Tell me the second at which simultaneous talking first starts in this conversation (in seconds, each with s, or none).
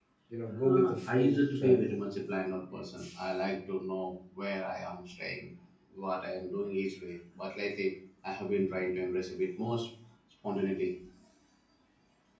0.6 s